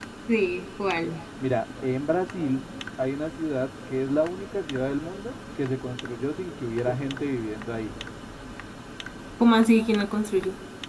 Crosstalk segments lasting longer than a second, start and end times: none

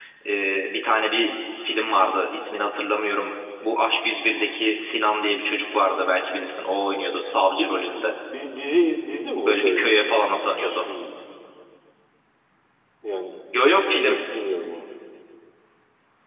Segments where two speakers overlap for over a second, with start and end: none

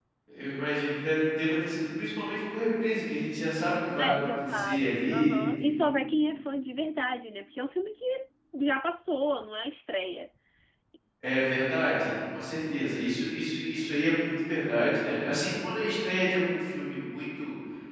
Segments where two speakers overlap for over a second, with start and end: 4.0-5.4

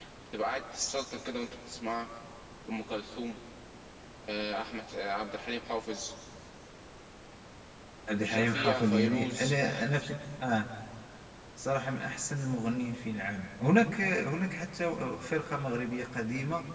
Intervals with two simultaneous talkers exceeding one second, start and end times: 8.2-9.5

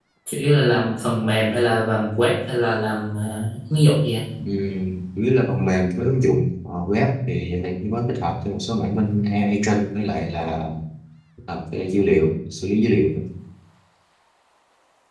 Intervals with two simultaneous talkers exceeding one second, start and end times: none

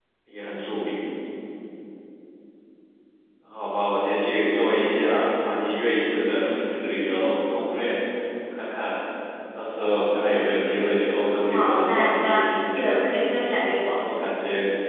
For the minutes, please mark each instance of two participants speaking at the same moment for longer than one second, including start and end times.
11.5-13.0

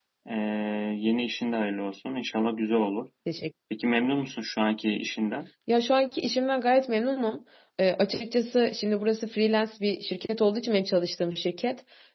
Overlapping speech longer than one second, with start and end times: none

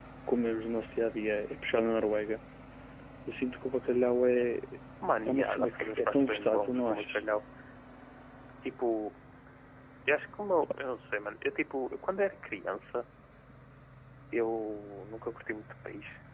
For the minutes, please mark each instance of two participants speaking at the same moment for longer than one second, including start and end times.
5.2-7.2

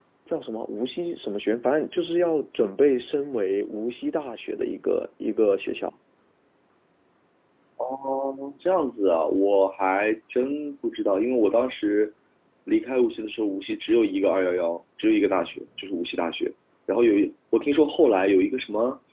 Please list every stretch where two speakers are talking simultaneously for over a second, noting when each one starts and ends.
none

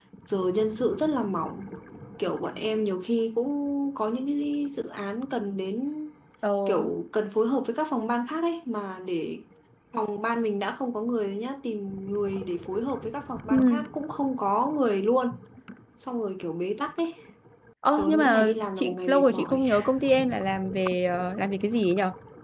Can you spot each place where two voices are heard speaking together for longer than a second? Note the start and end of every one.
18.0-19.6

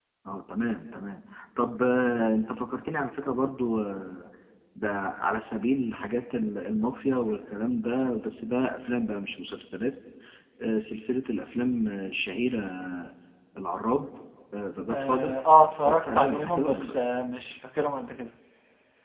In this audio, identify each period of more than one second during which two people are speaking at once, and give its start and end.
14.9-16.9

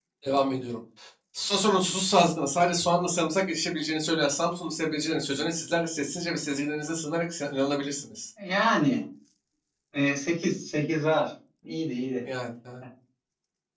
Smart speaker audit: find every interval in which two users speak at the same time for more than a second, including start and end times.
none

